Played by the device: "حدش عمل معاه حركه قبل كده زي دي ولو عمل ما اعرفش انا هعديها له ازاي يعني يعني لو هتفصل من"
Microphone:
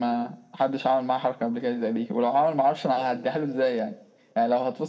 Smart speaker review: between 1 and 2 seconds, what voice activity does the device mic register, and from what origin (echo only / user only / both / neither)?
echo only